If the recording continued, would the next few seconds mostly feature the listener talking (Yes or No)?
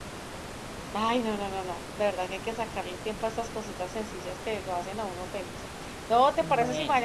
No